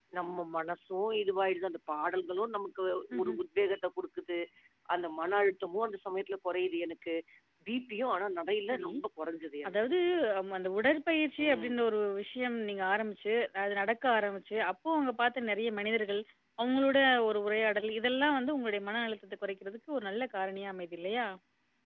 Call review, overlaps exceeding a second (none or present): none